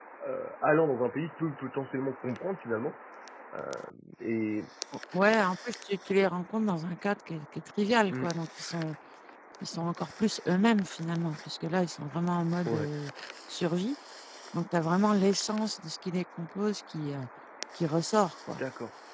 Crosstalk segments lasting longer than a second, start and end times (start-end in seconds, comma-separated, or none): none